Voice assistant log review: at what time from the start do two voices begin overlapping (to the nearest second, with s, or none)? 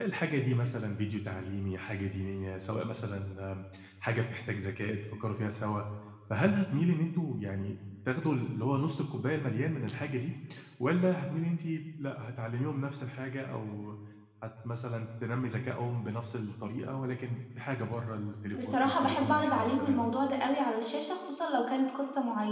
19 s